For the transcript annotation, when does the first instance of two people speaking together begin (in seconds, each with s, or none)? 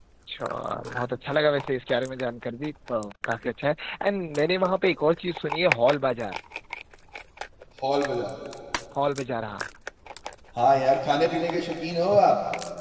none